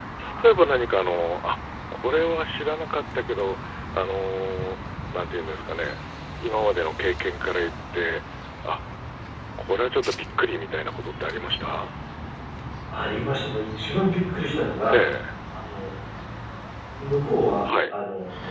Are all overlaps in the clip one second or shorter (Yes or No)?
Yes